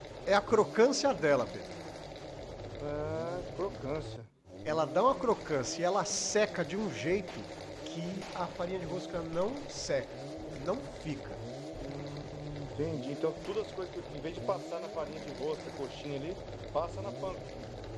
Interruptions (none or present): none